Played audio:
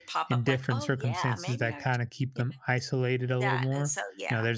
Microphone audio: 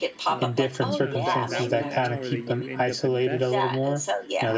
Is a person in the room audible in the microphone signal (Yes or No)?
Yes